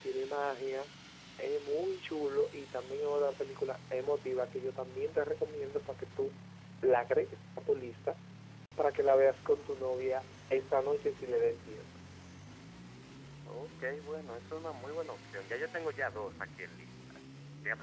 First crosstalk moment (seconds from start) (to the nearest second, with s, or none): none